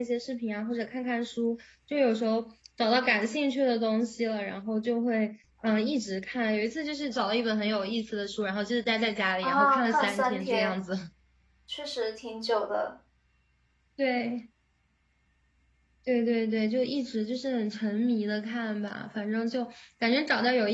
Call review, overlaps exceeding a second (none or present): present